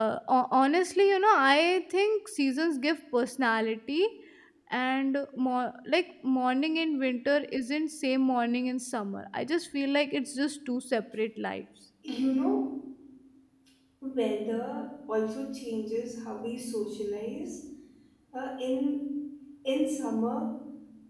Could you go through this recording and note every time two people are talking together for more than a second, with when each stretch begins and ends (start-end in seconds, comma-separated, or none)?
none